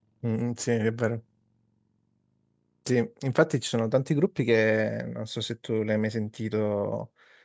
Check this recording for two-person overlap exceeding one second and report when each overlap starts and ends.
none

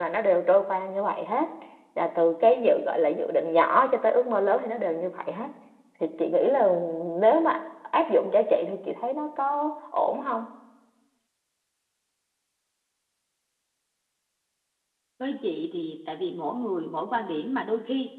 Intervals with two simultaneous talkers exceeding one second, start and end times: none

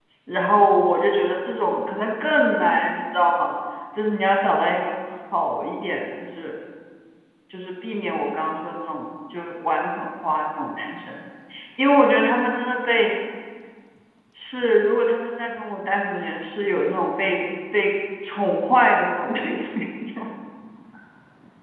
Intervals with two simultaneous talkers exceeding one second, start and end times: none

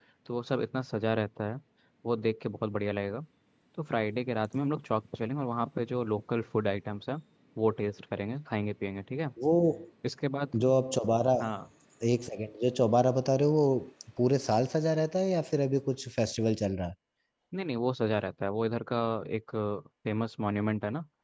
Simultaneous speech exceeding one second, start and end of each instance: none

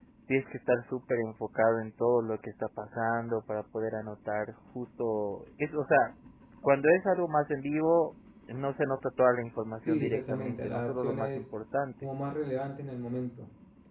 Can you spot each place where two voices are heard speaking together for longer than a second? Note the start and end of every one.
9.9-11.4

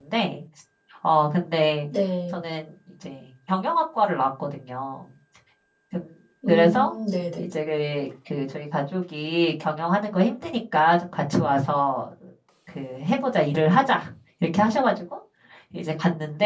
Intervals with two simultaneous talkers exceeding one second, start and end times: none

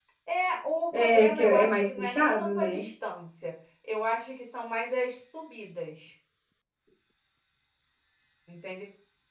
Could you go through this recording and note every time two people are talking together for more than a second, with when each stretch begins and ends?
1.0-2.8

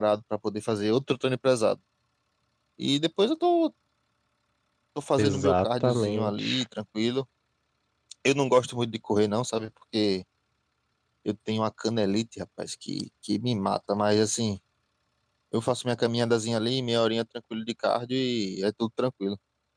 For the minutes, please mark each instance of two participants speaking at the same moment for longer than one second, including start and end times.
5.2-6.6

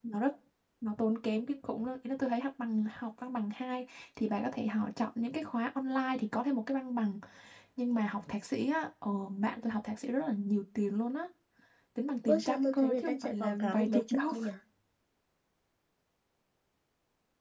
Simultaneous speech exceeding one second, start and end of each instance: 12.2-14.3

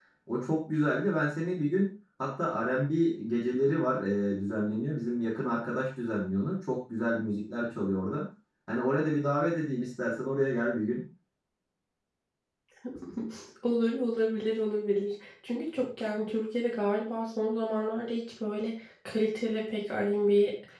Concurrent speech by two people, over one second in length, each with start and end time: none

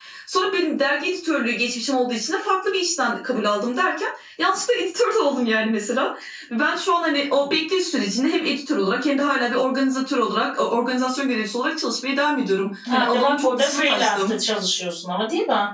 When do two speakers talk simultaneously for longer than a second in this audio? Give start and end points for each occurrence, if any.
12.9-14.3

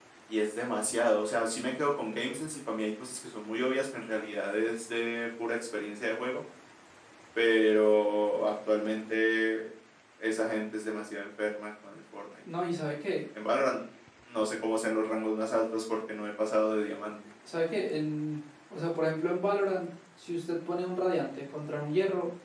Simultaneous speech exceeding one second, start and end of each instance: none

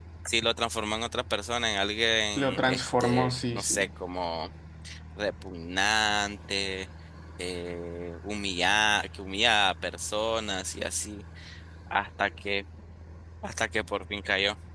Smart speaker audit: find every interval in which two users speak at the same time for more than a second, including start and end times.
2.4-3.9

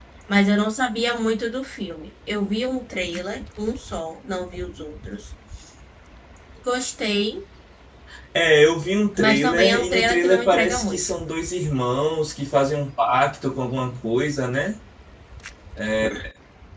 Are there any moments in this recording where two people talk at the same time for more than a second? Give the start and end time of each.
9.2-11.0

